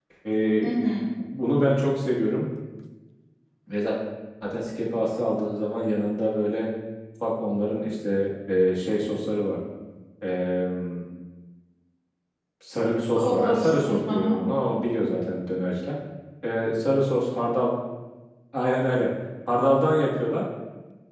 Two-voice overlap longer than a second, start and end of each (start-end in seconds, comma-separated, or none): 13.2-14.4